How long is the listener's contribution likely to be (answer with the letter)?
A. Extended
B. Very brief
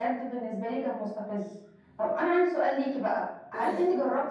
B